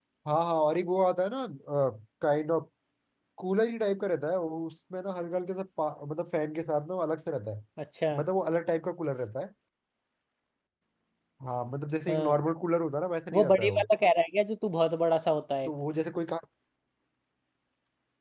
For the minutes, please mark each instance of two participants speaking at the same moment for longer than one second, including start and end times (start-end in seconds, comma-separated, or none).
none